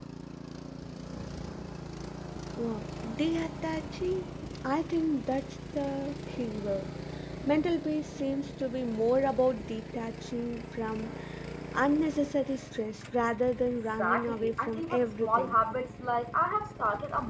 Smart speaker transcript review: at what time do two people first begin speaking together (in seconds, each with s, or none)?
14.0 s